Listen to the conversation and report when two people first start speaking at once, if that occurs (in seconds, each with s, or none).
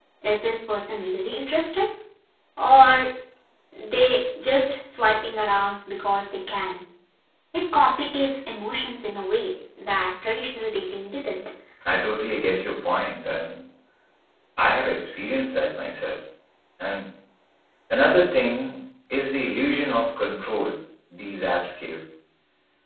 none